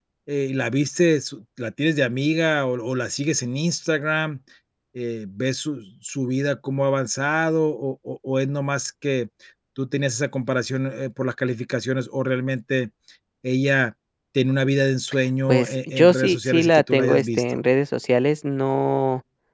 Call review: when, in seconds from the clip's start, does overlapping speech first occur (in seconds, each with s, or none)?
15.5 s